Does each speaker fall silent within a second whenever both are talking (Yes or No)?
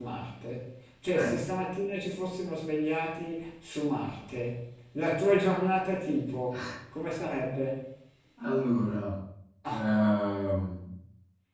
Yes